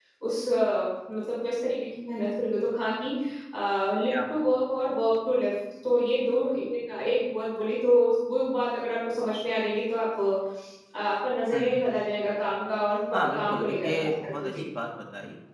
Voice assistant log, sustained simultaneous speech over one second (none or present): present